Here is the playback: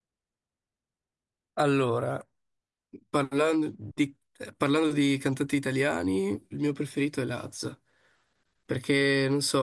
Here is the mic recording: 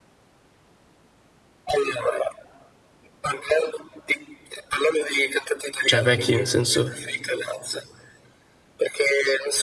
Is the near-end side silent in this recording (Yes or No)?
No